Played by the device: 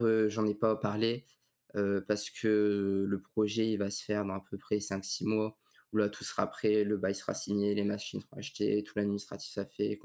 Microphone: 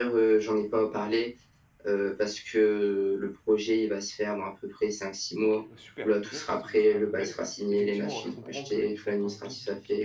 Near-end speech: present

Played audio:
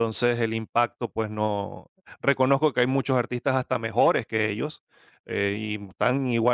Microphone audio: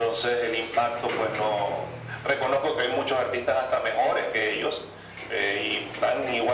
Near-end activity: none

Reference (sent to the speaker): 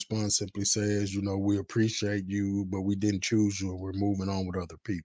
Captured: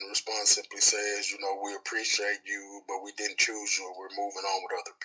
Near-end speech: none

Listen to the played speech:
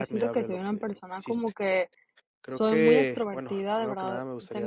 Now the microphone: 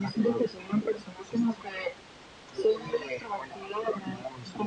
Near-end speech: none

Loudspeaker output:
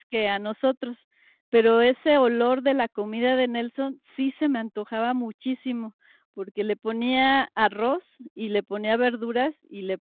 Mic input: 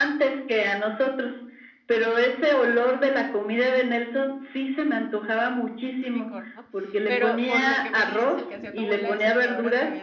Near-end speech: present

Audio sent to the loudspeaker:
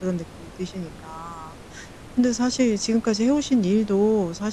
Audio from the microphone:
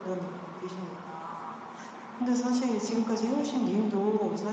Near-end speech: none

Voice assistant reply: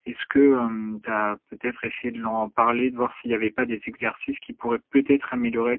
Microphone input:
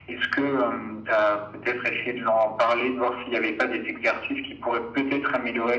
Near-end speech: none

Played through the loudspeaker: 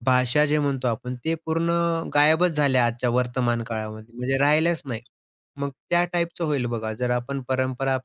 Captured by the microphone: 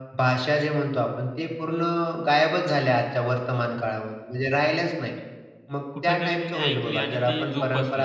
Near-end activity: present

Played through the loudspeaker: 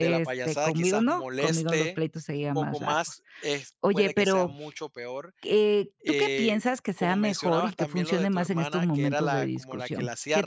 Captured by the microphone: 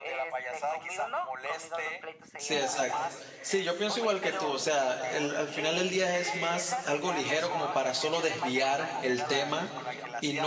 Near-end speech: present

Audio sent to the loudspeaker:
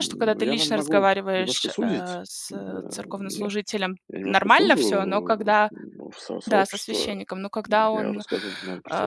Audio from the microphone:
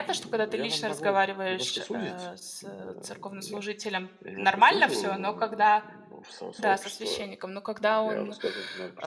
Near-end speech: none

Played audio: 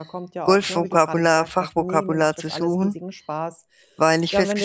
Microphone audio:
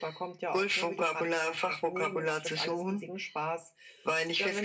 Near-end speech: none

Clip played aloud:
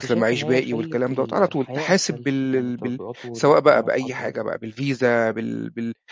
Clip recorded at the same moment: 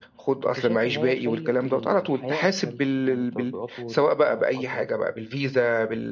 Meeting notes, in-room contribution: none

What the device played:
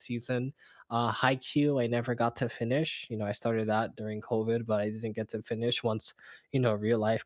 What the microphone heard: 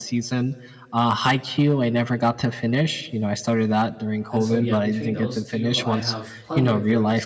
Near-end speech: present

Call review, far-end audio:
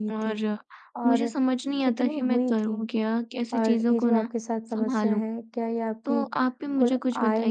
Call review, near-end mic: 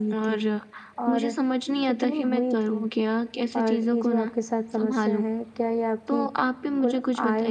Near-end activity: none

